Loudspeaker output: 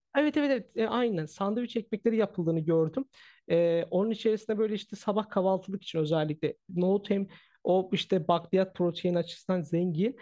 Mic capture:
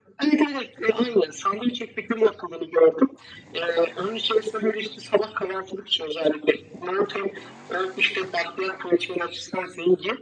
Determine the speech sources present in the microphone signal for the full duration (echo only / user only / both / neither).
echo only